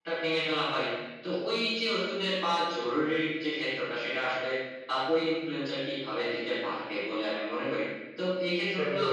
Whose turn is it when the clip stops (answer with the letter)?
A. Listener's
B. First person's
B